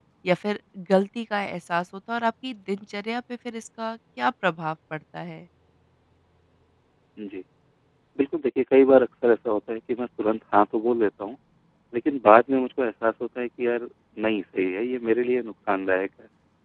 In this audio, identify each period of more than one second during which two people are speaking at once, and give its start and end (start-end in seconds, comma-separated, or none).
none